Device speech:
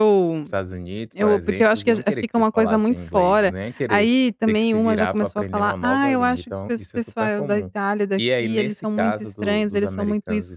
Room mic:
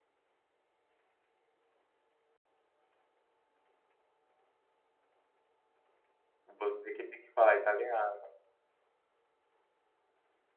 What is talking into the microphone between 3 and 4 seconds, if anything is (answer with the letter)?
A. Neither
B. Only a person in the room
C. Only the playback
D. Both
A